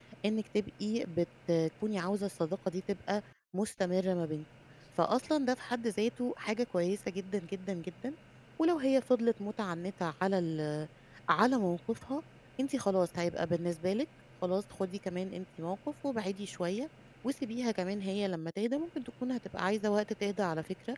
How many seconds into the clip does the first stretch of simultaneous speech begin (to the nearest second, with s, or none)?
none